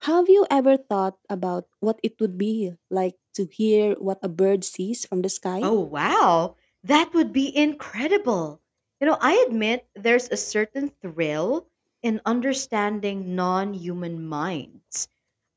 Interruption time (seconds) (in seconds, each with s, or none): none